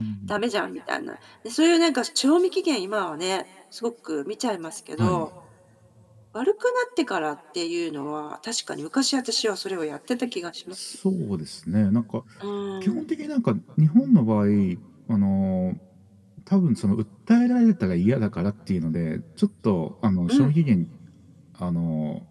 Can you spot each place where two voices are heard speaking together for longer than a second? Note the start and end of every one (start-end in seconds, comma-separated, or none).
none